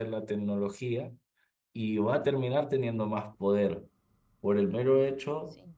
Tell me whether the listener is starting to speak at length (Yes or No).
No